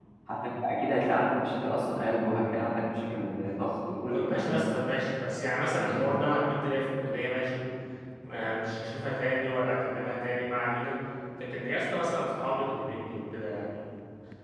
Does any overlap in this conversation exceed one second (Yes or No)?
No